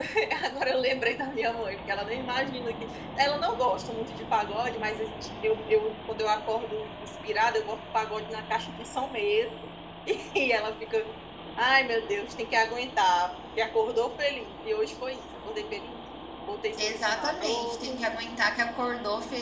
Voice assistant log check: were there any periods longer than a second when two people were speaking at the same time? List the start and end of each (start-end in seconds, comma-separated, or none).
16.8-18.0